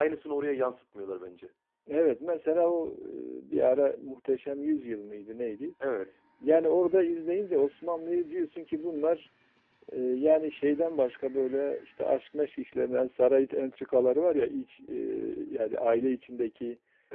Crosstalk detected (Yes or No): No